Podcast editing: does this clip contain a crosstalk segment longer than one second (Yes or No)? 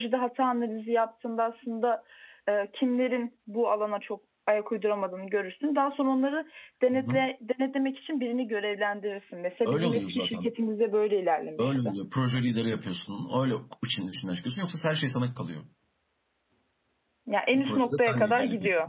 Yes